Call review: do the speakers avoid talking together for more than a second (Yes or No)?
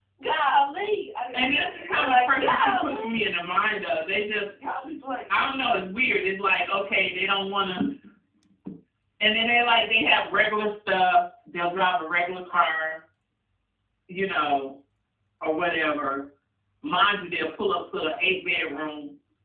No